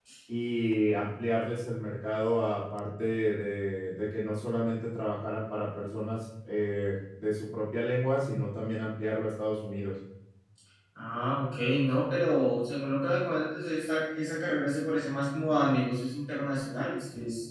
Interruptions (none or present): none